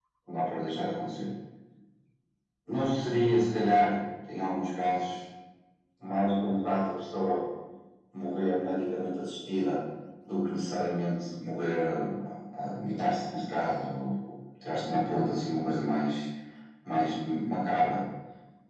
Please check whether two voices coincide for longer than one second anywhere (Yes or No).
No